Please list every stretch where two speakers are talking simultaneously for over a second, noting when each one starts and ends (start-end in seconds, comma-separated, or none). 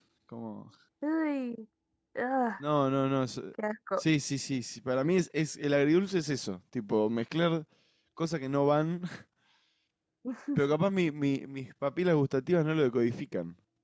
none